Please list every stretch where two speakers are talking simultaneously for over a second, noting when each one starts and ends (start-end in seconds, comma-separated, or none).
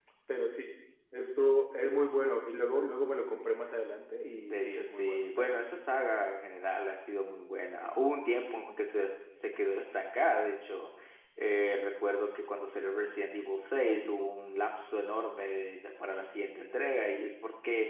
4.4-5.6